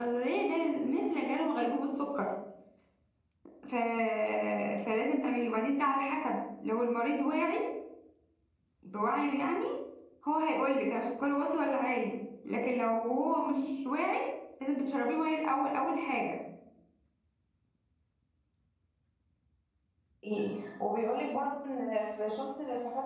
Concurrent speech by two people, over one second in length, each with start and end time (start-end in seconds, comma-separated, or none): none